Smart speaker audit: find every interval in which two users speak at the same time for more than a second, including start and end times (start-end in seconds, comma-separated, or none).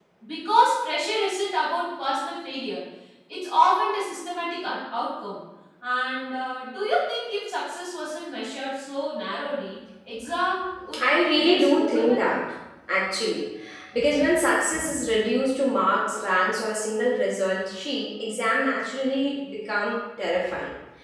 11.0-12.4